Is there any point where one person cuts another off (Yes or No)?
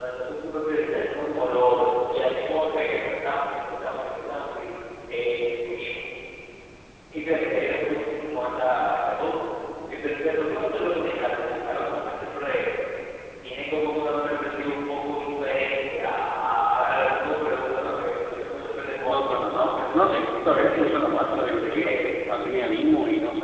Yes